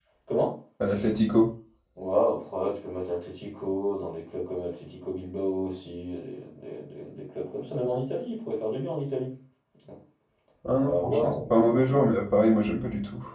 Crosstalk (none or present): present